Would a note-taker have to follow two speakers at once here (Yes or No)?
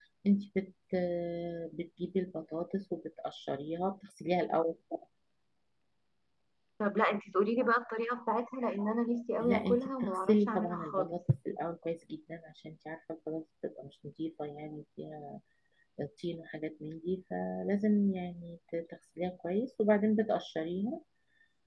Yes